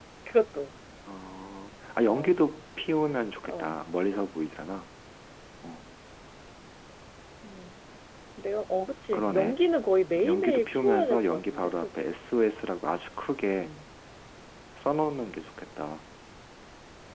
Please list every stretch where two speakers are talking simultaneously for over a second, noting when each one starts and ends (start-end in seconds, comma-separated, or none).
10.2-12.1